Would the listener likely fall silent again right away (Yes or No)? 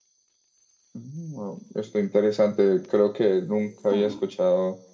Yes